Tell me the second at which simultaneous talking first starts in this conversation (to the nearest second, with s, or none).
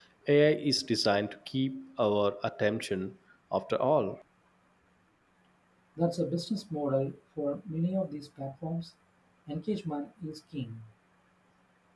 none